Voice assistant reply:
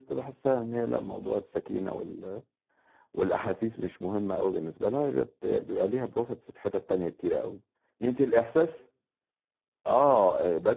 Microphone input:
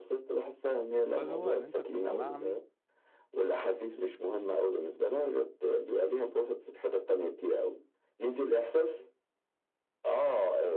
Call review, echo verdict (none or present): present